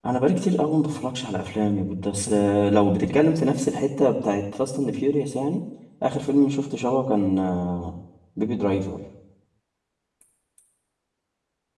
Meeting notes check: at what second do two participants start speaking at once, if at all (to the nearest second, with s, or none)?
none